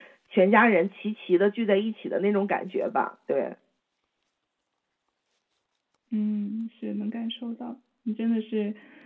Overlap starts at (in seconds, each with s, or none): none